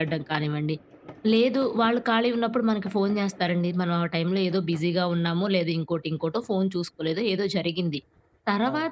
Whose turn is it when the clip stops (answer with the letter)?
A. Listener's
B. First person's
B